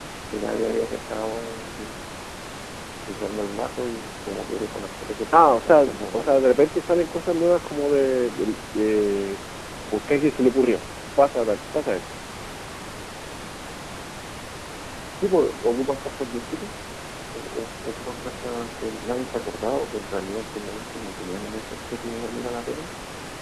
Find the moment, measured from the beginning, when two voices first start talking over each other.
5.3 s

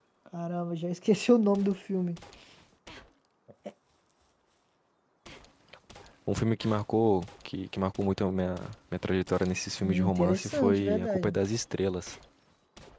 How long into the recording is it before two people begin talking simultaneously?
9.8 s

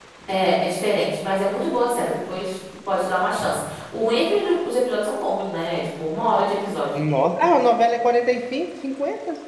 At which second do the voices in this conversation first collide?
none

